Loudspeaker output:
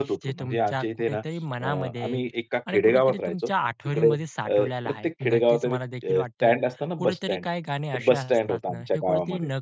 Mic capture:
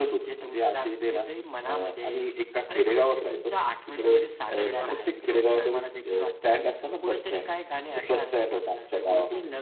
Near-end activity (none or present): present